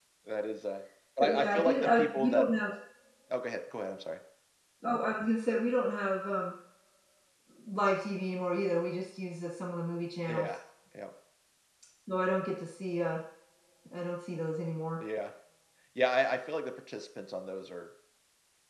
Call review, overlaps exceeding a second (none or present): present